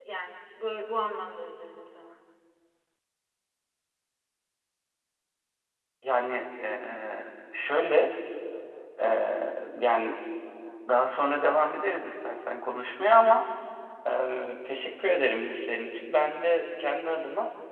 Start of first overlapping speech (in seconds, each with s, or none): none